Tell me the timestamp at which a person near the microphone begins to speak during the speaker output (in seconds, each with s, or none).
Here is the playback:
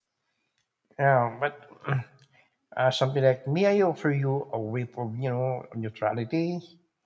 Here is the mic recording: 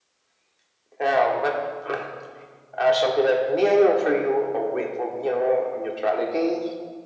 none